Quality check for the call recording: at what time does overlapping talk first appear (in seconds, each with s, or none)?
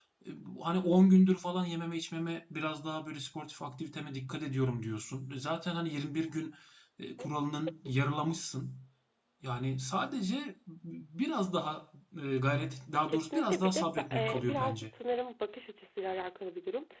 13.1 s